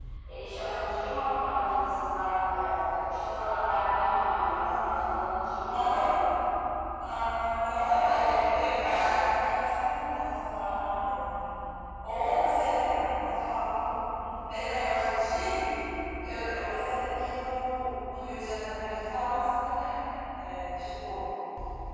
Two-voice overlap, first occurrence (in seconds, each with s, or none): 4.5 s